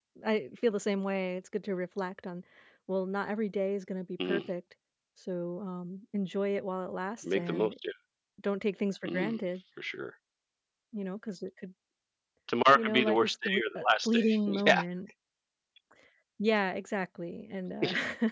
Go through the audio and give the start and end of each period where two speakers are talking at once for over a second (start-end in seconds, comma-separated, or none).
12.7-14.8